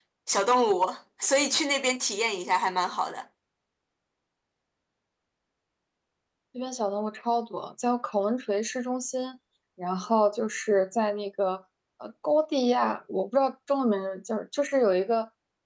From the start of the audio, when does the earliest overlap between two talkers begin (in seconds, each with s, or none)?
none